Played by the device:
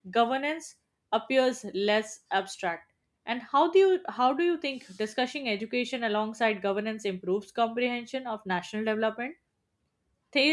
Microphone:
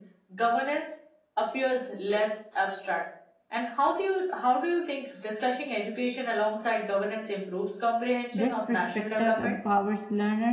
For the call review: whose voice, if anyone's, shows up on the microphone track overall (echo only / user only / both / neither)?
both